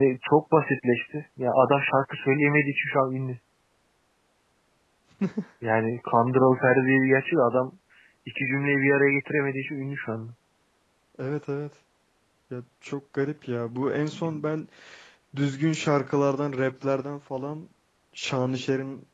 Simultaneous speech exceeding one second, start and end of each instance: none

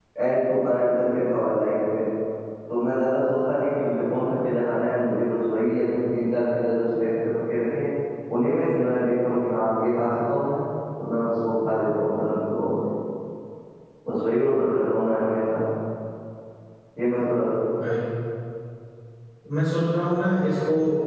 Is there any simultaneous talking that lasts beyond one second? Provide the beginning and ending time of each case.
none

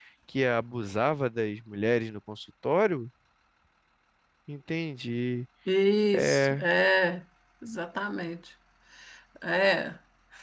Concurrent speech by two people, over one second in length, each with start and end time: none

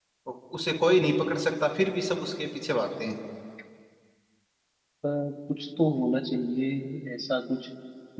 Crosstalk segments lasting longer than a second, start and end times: none

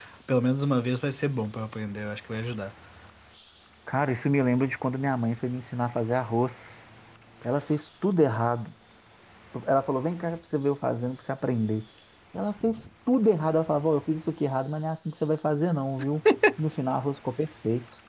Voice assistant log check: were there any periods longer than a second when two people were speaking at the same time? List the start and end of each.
none

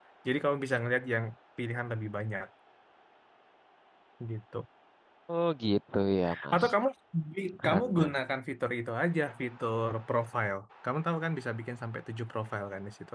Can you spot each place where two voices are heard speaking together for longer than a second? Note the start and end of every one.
none

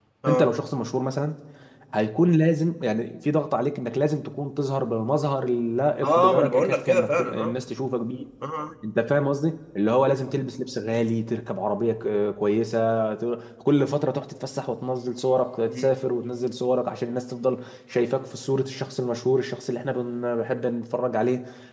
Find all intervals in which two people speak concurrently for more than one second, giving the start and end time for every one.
6.0-7.5

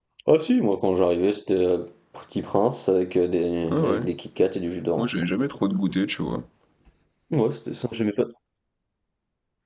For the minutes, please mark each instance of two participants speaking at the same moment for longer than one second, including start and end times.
none

